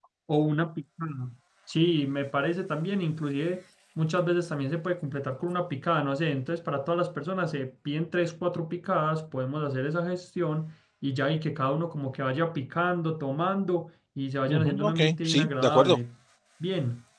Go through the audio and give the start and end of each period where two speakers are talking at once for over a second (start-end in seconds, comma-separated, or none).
14.5-16.0